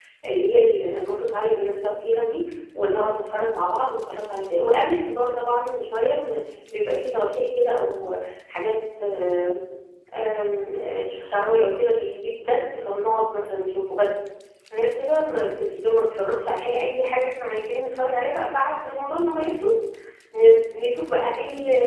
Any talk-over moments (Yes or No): No